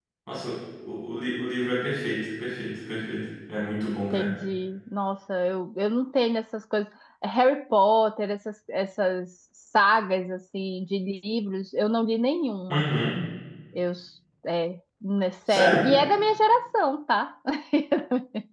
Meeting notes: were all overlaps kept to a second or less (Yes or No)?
Yes